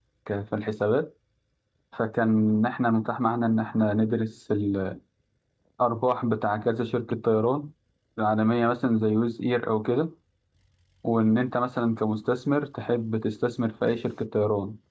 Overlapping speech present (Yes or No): No